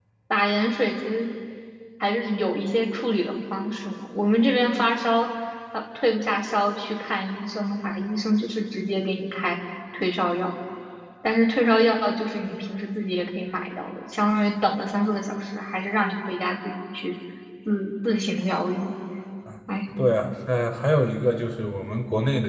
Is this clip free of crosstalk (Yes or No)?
Yes